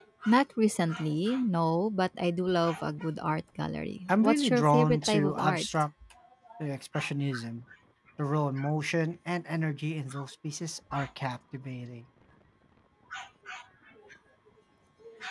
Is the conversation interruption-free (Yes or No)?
No